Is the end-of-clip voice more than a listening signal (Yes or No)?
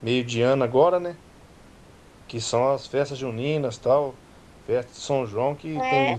No